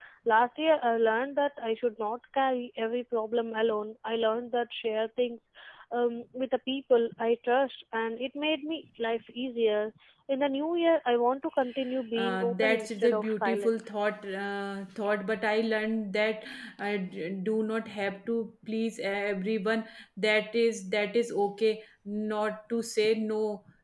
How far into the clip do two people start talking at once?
12.2 s

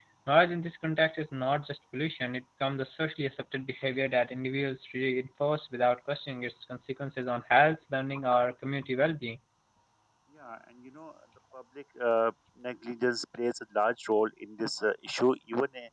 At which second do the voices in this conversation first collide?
none

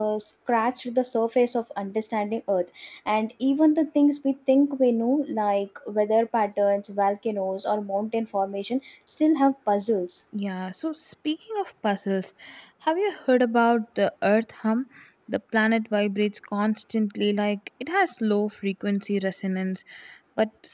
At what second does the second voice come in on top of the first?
none

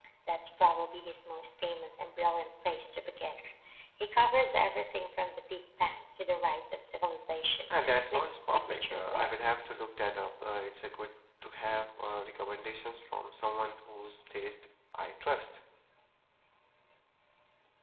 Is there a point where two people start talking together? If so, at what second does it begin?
7.7 s

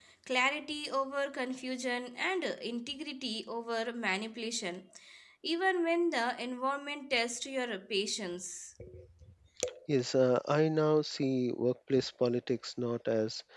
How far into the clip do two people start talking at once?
none

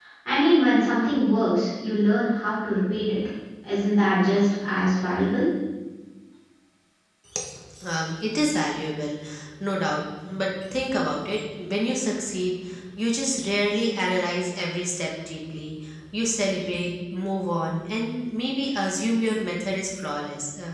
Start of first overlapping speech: none

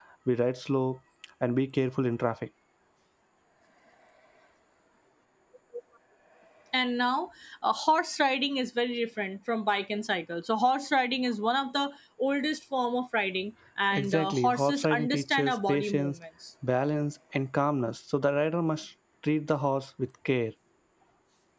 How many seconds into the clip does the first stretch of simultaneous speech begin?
13.9 s

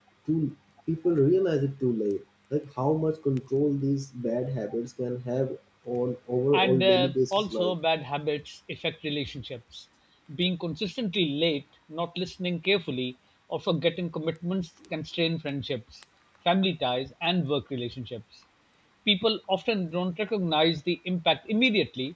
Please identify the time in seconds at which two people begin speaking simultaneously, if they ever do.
6.5 s

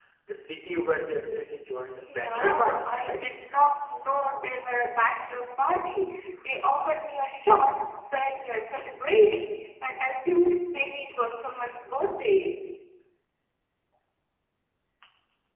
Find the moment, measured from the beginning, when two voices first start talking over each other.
2.0 s

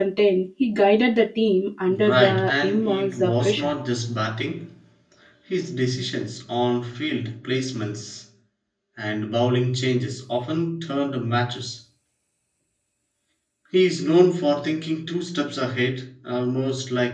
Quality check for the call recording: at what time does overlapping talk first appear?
1.9 s

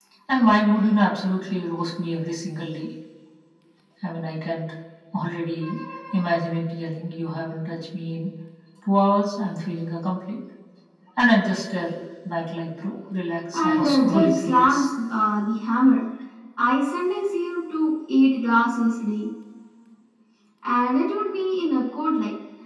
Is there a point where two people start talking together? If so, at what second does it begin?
13.5 s

